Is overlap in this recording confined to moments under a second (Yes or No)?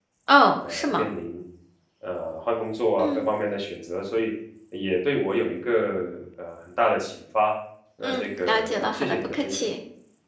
No